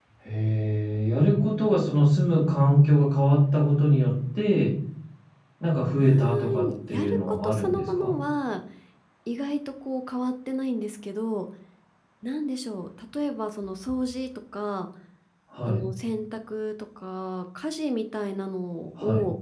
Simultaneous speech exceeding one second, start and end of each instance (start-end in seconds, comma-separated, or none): 6.0-8.1